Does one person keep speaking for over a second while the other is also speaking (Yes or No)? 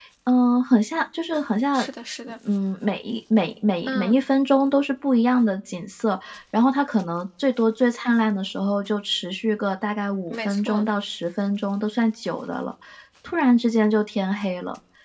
No